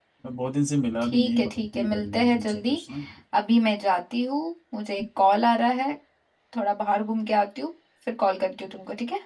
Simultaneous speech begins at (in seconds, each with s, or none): 1.1 s